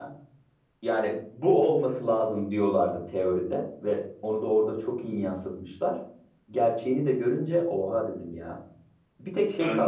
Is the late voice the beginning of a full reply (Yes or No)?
No